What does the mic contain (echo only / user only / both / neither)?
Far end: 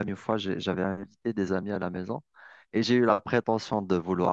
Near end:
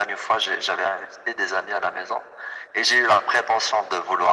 echo only